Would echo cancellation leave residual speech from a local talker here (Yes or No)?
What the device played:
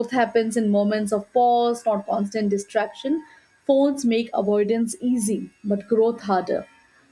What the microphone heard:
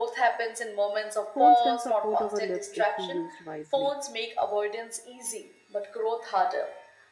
Yes